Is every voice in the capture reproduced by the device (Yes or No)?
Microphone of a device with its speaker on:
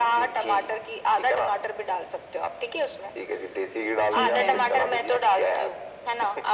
No